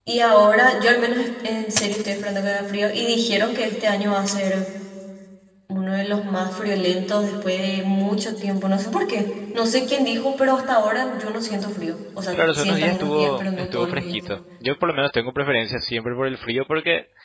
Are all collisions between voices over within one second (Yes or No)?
No